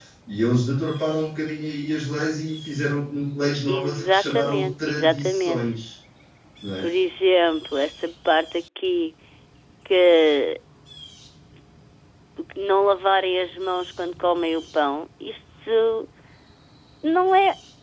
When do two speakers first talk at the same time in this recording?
4 s

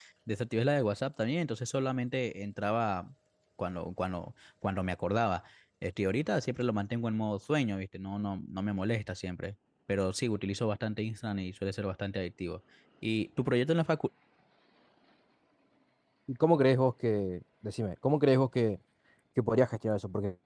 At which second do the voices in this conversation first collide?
none

